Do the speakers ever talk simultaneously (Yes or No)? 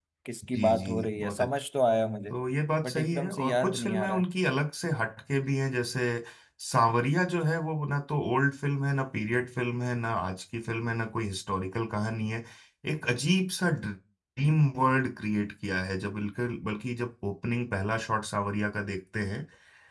Yes